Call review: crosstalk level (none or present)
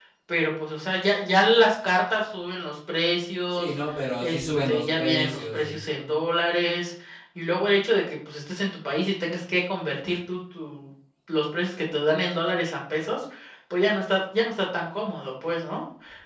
present